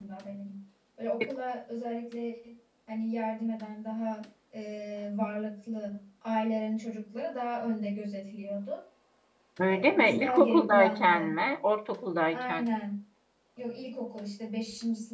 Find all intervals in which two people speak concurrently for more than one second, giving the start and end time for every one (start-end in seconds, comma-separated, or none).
9.7-11.3